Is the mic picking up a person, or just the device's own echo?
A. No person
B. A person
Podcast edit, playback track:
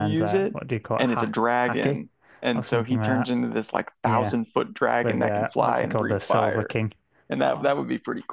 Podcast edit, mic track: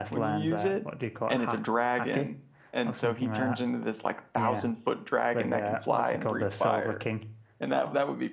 A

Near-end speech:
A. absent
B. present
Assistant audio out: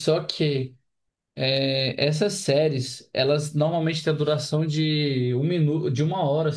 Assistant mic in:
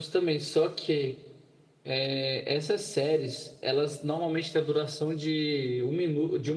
A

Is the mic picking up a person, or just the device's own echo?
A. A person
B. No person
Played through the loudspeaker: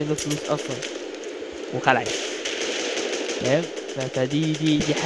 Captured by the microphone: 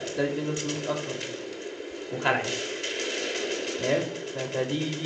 B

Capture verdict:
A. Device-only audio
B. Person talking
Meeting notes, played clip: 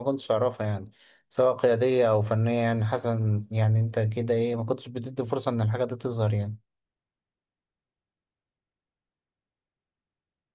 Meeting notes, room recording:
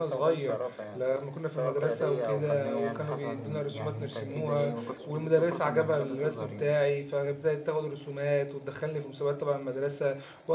B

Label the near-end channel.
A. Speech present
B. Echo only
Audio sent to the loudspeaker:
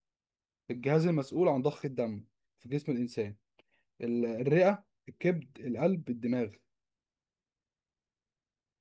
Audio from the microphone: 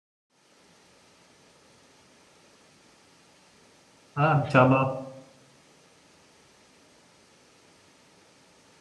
A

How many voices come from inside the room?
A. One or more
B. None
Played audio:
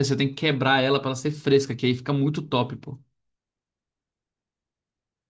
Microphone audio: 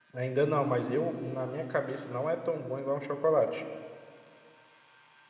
A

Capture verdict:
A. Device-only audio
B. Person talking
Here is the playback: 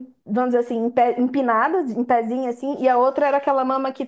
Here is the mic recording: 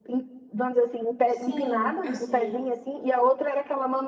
B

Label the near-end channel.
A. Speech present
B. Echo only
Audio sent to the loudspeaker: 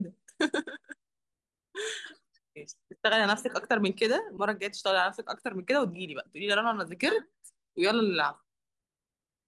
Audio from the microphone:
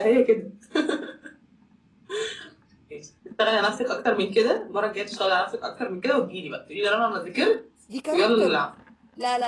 A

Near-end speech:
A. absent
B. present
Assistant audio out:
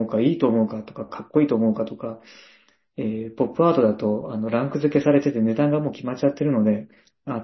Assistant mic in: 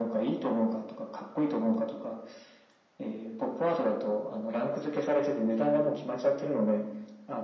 A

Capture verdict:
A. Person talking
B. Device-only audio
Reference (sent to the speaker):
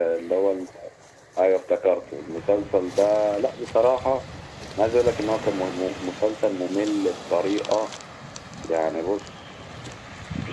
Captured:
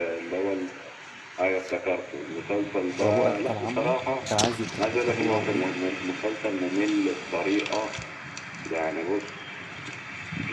A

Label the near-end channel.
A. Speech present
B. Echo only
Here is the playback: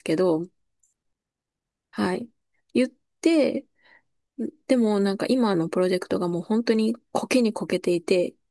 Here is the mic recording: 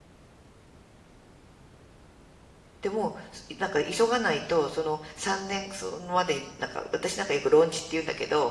A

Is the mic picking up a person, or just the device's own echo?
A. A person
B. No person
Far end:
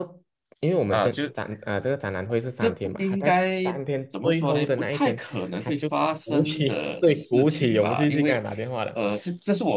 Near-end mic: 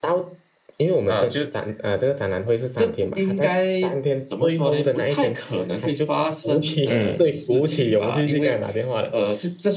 A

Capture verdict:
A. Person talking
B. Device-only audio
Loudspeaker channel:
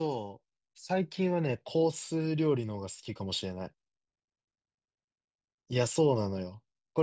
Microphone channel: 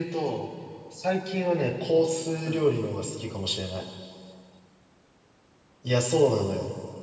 A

